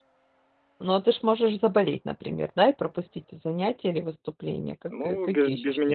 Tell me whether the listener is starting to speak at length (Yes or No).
Yes